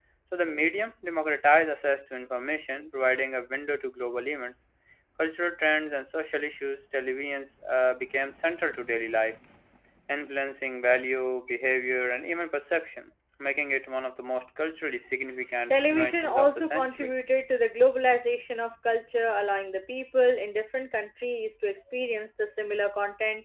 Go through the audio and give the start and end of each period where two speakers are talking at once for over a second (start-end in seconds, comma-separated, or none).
15.7-17.2